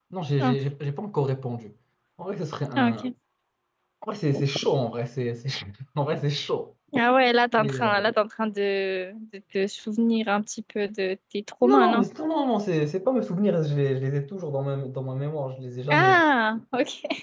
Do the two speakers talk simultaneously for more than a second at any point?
No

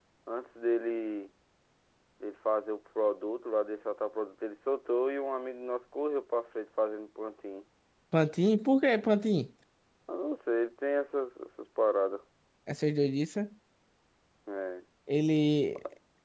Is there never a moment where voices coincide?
Yes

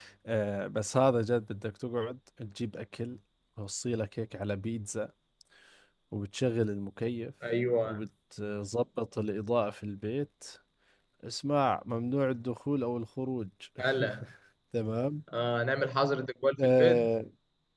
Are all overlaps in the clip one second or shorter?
Yes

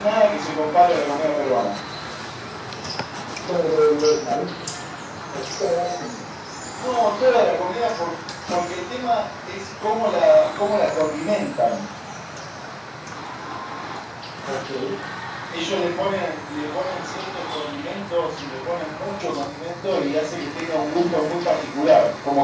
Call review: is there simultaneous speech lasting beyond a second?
No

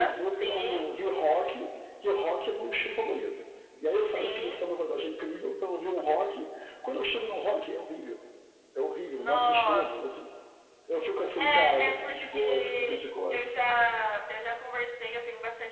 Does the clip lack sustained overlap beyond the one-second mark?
No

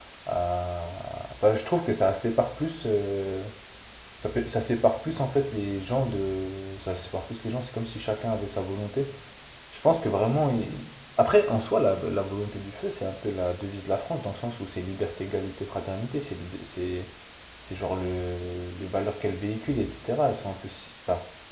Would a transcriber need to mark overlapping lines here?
No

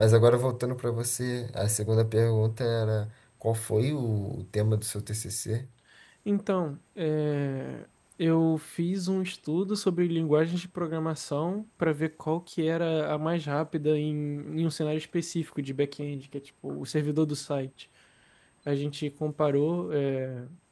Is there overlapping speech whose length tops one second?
No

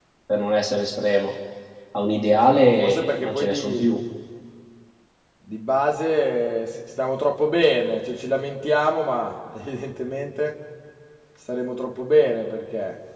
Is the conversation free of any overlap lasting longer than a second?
No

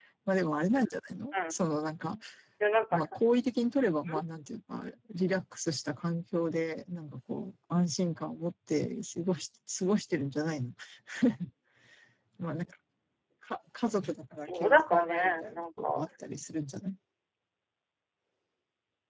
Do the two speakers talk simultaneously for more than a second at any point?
Yes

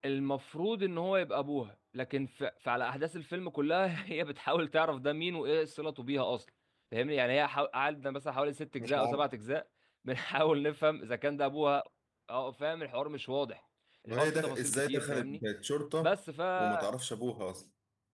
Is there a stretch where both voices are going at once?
Yes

